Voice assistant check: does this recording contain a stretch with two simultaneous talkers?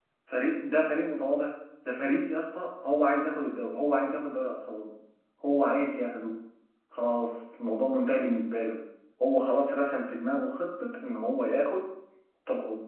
No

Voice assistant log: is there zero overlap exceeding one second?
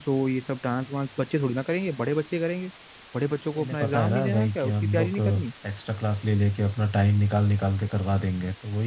No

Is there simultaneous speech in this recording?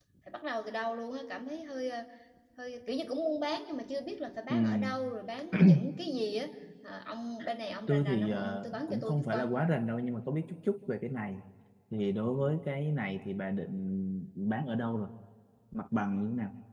Yes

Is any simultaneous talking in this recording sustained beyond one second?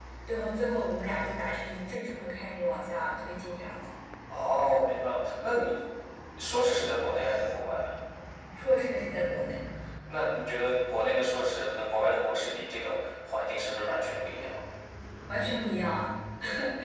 No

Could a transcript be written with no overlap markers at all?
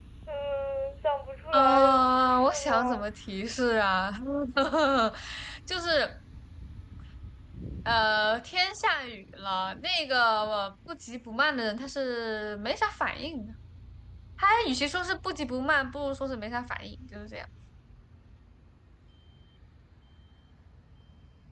No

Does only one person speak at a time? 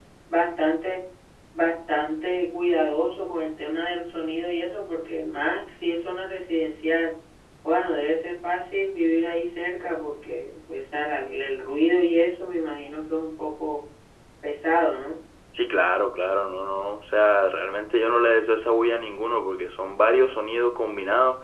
Yes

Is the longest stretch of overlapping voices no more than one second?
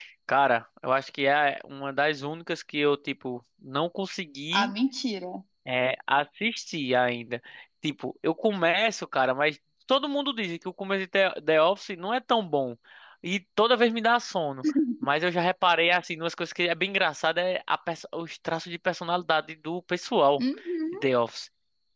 Yes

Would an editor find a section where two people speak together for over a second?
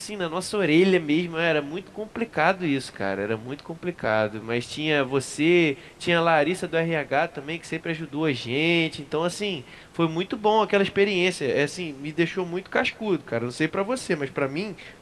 No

